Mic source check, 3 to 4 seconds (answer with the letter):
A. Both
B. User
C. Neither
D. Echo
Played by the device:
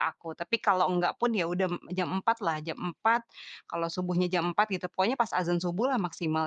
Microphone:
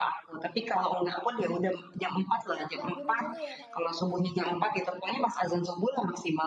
A